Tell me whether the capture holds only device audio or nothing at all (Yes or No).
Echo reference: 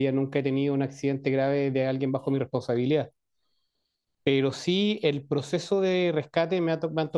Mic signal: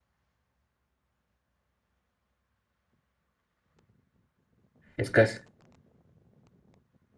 No